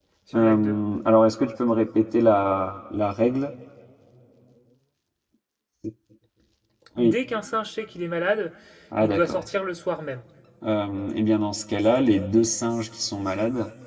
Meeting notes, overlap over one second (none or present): none